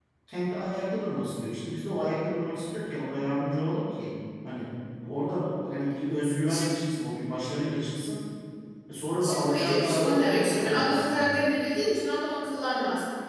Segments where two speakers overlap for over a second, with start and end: 9.2-11.4

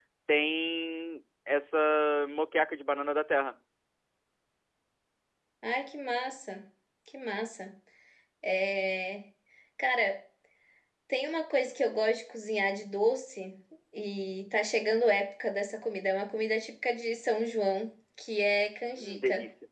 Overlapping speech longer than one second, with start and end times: none

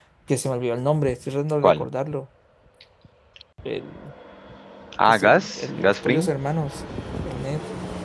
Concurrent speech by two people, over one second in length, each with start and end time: 5.1-6.3

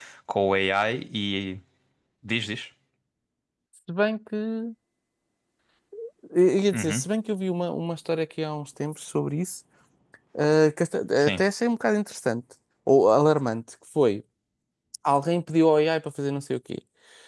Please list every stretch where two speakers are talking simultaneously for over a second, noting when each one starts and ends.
none

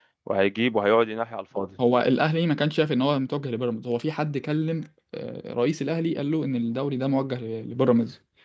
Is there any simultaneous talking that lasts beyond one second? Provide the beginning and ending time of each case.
none

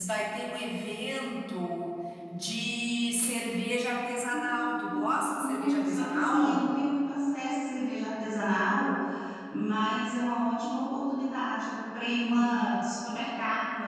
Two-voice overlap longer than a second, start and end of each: 4.9-6.6

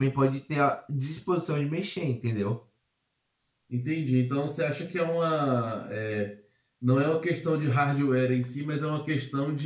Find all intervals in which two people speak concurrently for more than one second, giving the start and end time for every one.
none

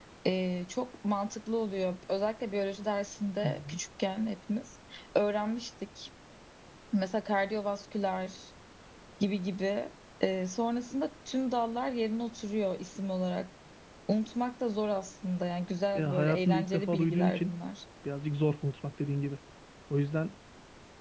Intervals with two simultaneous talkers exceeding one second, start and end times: 15.9-17.6

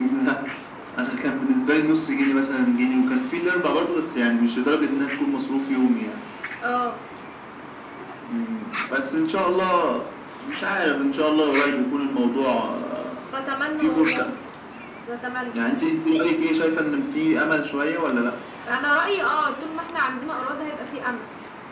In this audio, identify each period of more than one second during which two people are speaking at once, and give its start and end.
none

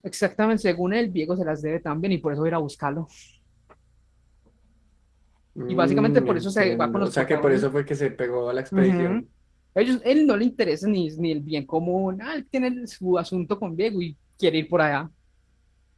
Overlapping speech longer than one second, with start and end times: 5.7-7.7

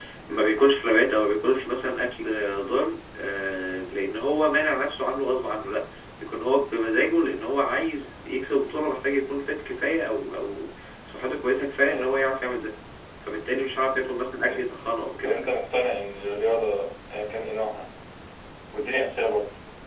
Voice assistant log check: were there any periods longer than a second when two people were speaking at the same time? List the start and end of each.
none

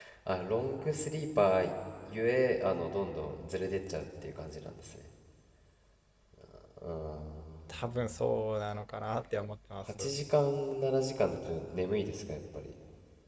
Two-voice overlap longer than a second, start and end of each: none

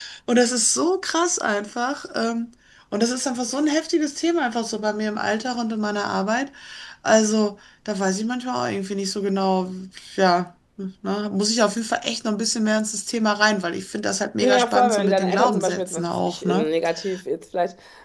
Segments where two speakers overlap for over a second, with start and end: 14.4-16.7

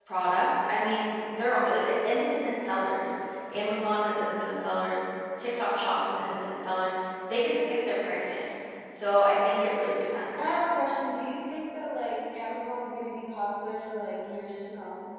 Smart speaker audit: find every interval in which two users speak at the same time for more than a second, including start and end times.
none

